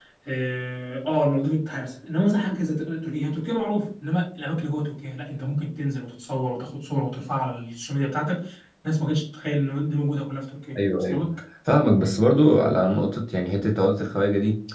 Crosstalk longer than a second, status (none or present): none